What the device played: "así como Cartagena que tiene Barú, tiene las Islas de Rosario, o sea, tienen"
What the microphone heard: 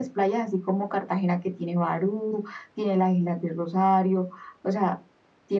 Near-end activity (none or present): none